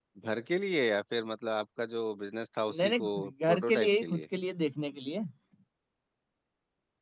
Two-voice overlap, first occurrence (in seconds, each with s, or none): 2.7 s